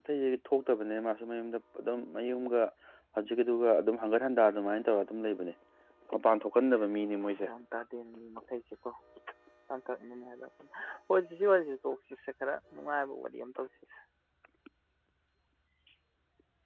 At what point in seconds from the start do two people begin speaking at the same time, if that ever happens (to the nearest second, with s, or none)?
none